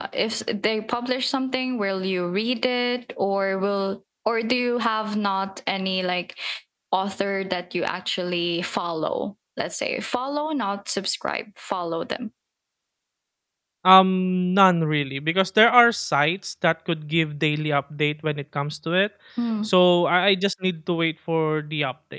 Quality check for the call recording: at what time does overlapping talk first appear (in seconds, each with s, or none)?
none